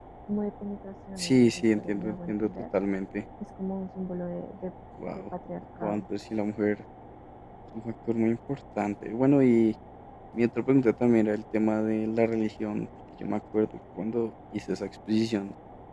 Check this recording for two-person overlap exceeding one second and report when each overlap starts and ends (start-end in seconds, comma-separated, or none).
1.2-2.5